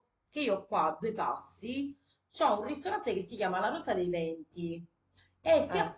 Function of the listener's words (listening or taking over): listening